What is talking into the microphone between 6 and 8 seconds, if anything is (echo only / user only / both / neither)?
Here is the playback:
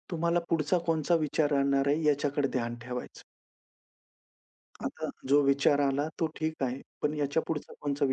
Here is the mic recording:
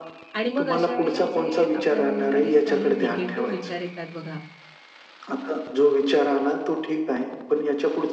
echo only